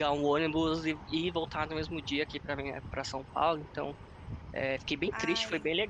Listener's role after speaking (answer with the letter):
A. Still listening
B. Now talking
A